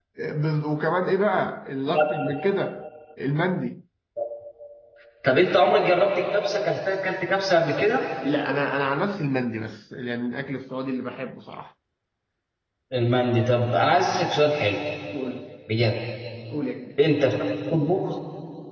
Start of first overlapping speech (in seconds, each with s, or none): none